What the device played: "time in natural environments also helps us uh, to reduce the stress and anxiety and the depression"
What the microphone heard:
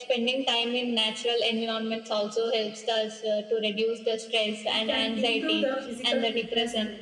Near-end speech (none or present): present